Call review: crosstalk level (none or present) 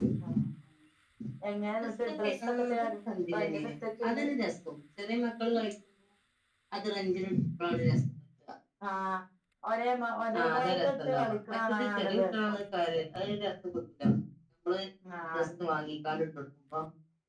present